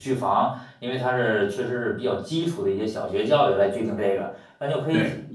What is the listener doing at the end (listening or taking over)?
listening